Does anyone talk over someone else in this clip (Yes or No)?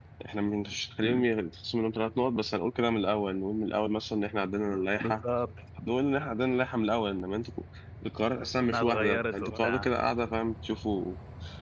Yes